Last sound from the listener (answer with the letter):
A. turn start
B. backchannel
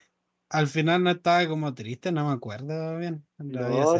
A